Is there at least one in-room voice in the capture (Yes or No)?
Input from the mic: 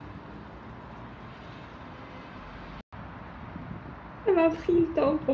Yes